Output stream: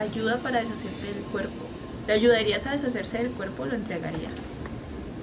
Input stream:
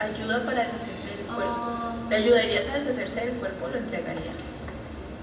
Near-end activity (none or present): present